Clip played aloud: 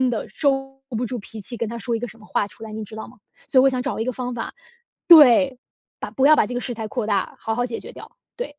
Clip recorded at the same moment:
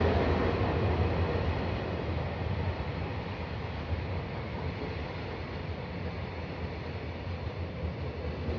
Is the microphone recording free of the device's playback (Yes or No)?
Yes